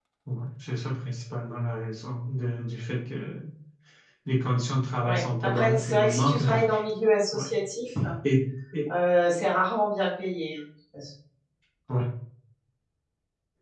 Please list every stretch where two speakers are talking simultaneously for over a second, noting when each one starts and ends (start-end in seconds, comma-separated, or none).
5.0-6.8